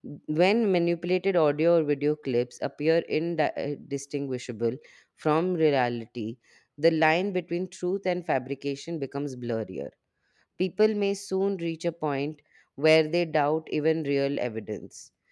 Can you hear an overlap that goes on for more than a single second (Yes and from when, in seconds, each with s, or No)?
No